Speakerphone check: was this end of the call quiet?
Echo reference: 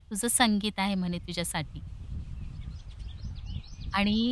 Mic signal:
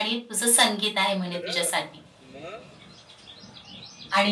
No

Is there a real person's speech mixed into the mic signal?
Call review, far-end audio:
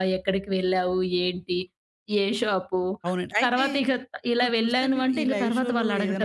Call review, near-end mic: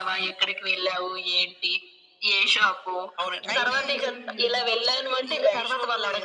Yes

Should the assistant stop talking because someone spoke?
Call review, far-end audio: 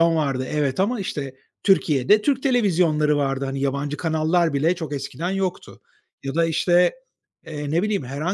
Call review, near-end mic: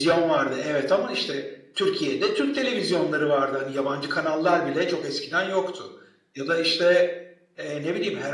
No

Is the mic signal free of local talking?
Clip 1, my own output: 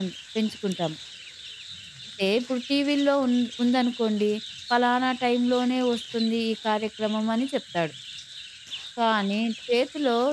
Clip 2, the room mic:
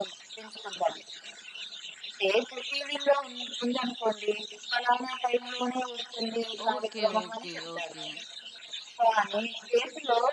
No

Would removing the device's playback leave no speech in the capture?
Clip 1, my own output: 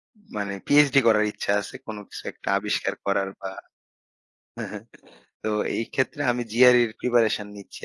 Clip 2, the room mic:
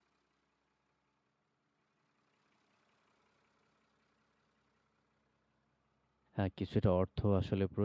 No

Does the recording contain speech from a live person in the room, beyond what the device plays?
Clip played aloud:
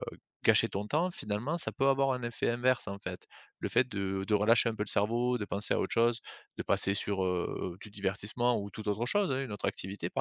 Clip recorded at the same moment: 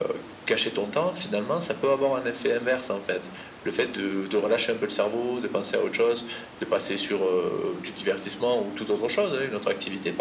No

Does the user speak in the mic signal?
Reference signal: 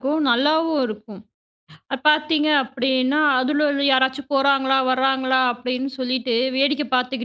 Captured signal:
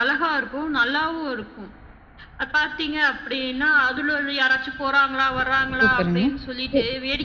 Yes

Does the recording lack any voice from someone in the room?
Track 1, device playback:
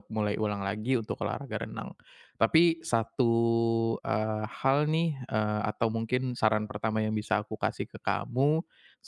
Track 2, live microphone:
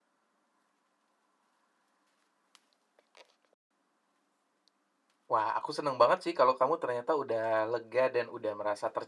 No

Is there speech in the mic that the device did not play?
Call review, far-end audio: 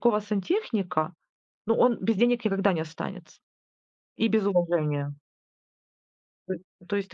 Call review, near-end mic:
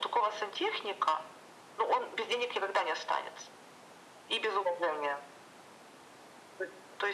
No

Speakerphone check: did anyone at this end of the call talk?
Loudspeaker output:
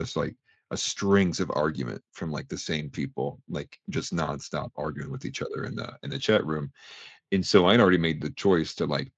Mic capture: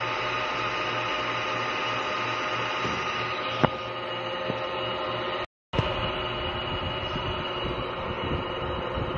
No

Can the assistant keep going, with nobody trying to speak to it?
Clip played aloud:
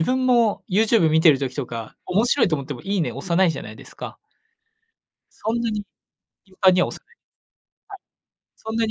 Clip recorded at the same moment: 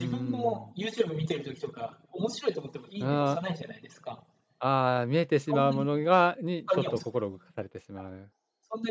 No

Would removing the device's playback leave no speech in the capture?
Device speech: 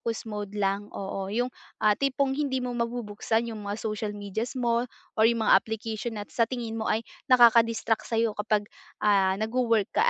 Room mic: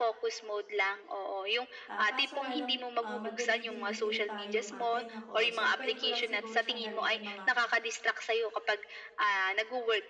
No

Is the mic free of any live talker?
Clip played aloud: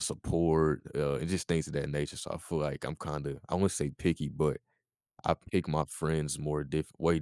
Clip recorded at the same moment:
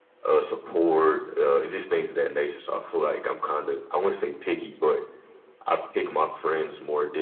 Yes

